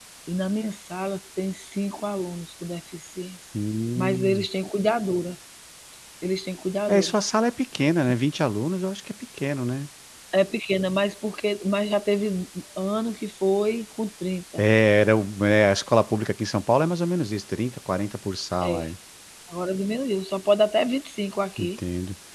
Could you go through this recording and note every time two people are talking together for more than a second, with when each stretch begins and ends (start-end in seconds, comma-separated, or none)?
none